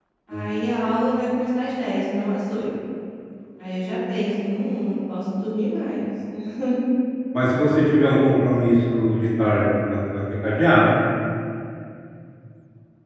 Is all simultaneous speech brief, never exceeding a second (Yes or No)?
Yes